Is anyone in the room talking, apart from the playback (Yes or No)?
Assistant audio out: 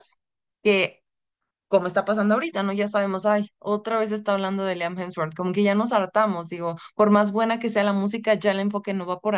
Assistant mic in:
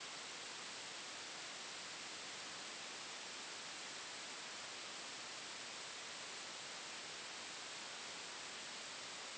No